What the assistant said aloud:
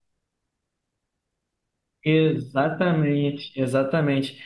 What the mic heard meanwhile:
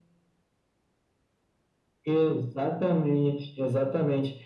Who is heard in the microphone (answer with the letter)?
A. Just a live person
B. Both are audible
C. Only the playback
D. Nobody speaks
C